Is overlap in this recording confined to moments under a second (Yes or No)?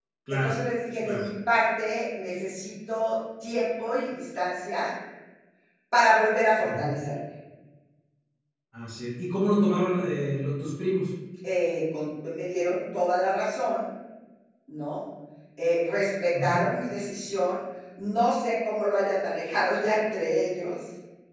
Yes